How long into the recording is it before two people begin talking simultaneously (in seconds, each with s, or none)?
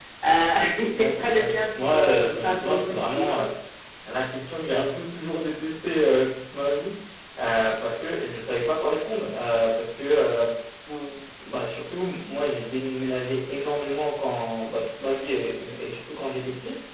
1.0 s